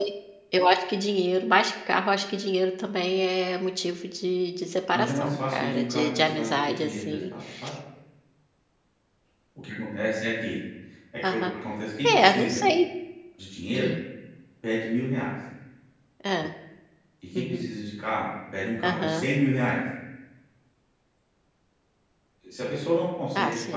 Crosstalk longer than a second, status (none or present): present